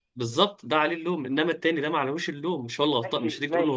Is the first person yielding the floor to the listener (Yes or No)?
Yes